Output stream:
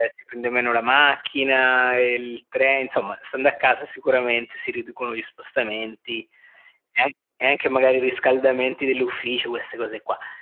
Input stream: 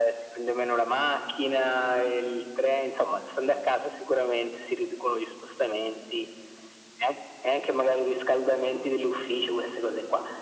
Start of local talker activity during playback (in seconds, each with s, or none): none